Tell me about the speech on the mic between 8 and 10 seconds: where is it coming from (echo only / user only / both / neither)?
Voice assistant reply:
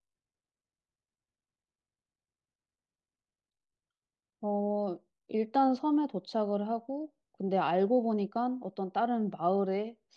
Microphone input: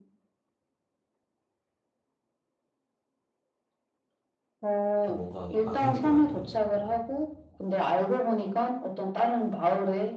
echo only